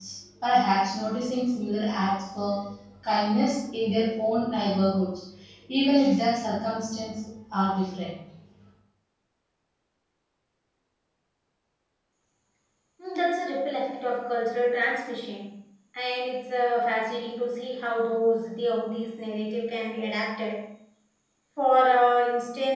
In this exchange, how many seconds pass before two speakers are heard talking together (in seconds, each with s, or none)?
none